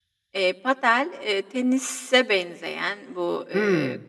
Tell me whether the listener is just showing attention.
Yes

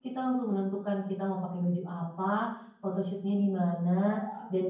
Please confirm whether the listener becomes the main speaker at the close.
No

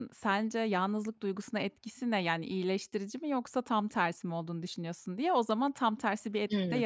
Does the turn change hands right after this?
Yes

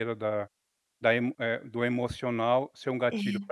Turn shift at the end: No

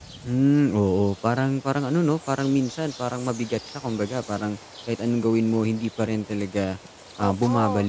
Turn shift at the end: Yes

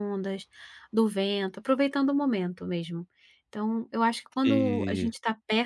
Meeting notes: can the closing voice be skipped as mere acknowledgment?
Yes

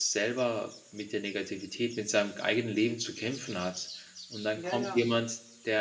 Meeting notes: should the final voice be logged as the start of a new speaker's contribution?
No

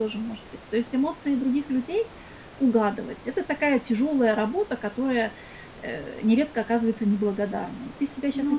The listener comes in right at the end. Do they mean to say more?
No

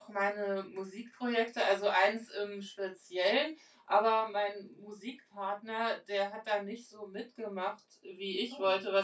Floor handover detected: No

